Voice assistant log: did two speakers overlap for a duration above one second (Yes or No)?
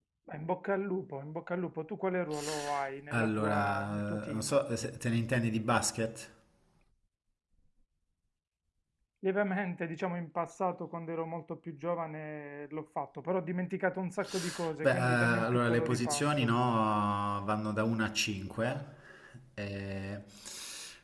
Yes